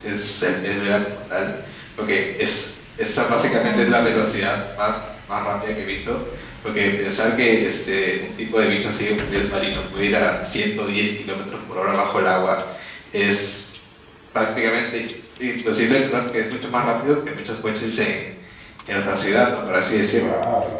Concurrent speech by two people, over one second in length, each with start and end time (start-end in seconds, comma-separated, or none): 3.3-4.5